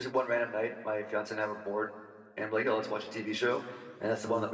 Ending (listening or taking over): listening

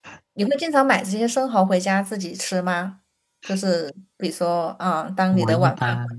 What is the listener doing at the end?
taking over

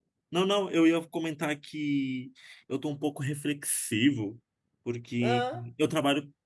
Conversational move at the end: listening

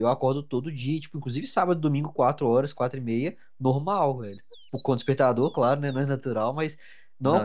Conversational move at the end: listening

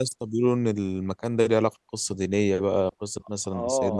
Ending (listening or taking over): taking over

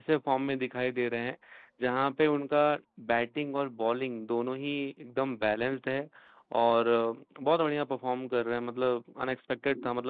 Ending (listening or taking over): listening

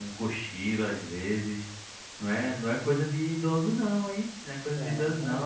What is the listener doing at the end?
listening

